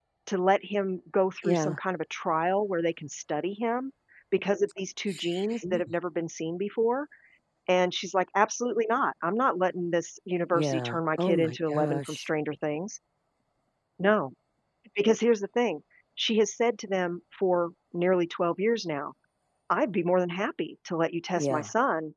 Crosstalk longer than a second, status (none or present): present